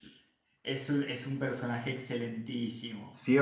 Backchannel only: No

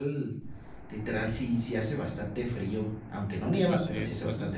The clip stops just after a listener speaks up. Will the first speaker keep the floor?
No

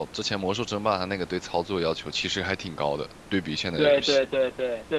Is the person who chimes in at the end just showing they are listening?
No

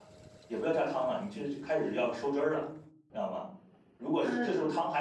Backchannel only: Yes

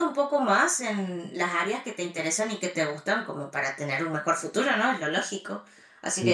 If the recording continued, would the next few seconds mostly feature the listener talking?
No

